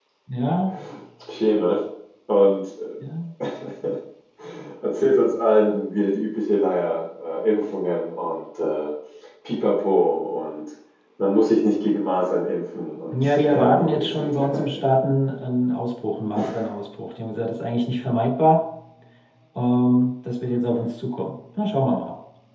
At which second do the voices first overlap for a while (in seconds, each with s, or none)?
13.1 s